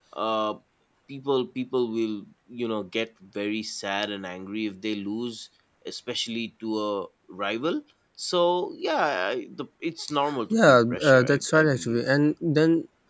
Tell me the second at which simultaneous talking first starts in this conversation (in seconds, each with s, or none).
10.5 s